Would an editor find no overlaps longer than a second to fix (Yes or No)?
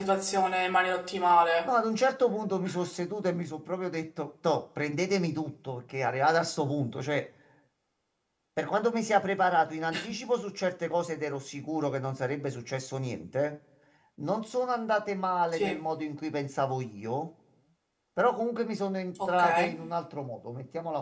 Yes